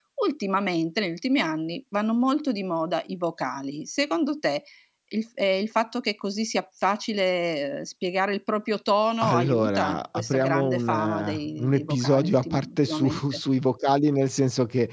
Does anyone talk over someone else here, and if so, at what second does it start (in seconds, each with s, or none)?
9.2 s